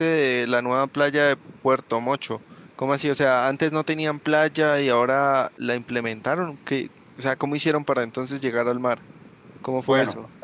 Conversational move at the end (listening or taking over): taking over